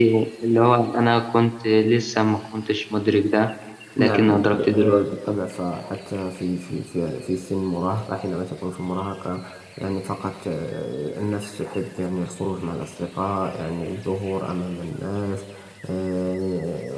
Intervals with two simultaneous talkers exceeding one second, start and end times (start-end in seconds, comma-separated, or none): 4.0-5.4